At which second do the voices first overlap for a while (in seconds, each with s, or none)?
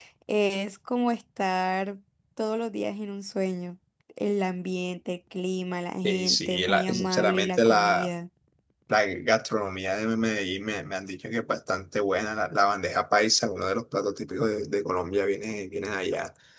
6.0 s